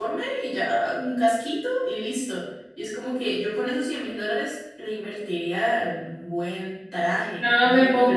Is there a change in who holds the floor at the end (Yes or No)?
Yes